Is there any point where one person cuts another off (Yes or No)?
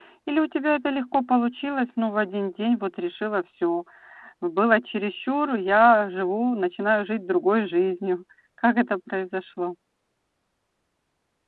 No